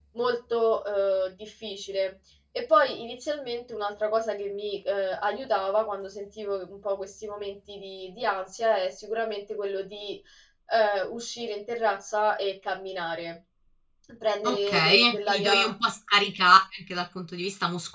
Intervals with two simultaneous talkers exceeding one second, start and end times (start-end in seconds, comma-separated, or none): 14.4-15.7